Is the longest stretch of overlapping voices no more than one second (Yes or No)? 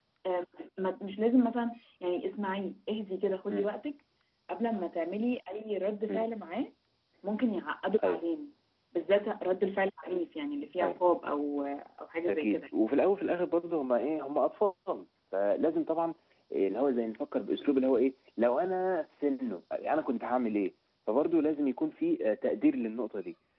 Yes